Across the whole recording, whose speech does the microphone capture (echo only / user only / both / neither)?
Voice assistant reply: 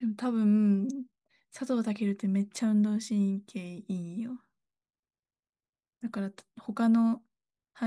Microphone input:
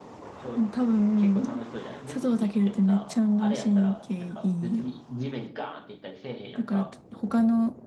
both